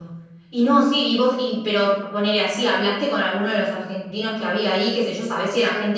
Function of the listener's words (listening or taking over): listening